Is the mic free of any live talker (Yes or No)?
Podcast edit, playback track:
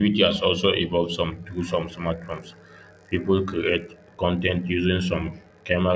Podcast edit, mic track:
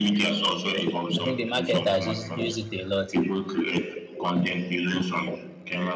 No